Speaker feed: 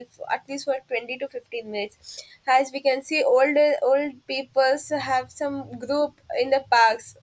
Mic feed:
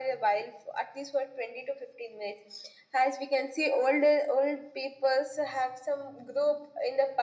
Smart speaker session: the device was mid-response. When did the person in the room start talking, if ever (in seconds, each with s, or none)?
none